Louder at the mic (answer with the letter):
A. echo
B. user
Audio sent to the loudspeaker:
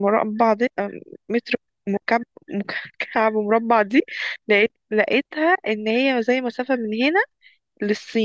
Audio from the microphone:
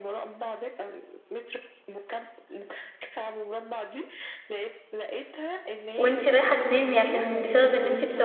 B